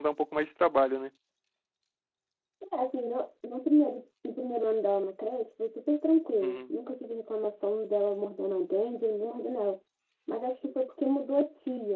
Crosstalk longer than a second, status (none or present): none